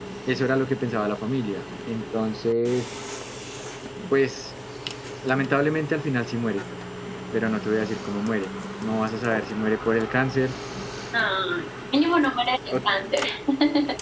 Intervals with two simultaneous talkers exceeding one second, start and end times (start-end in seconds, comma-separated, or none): none